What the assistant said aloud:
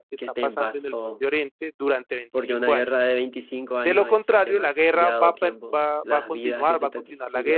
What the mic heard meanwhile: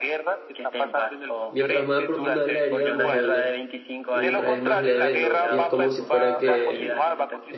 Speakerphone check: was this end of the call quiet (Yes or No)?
No